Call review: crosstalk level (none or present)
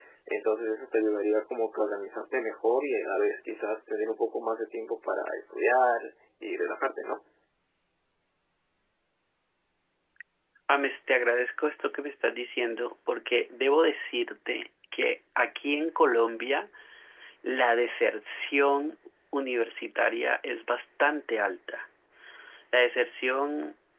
none